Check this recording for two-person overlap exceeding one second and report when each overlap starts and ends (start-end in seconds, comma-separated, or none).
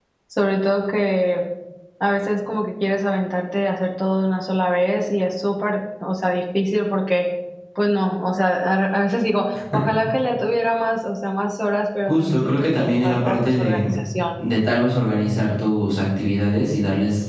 12.1-13.8